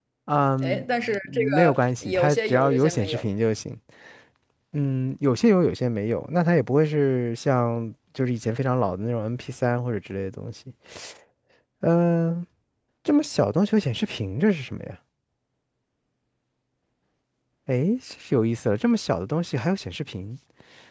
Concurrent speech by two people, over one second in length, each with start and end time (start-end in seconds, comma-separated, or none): 1.2-3.3